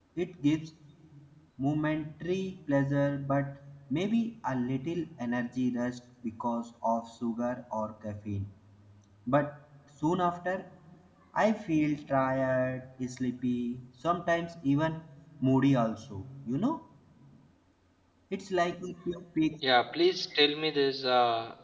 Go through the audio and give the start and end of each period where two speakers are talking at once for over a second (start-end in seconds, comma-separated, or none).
none